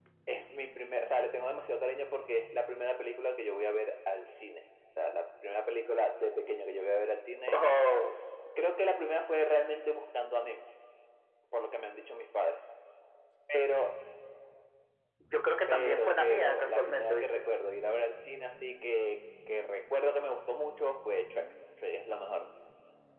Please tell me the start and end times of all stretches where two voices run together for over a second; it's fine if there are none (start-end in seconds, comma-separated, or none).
15.7-17.4